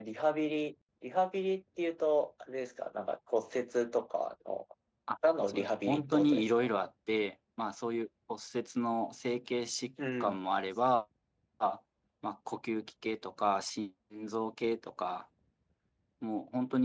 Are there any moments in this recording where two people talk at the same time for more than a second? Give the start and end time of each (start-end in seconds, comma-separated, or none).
5.5-6.7